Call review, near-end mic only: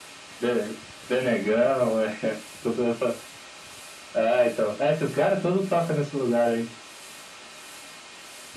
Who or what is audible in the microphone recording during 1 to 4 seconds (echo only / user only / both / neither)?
echo only